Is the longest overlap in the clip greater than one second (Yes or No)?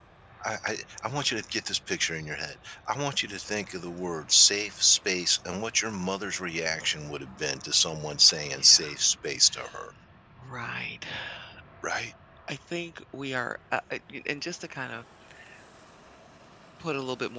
No